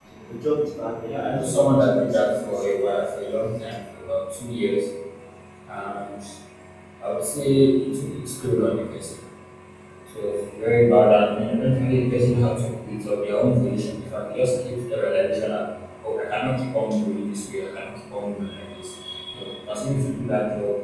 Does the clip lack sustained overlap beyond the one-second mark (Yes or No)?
No